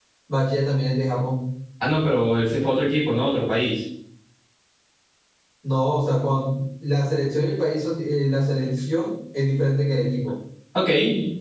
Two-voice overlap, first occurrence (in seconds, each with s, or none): none